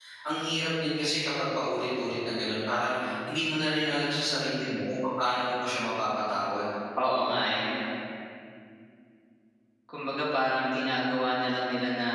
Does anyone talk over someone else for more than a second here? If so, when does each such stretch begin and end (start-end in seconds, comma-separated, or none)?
none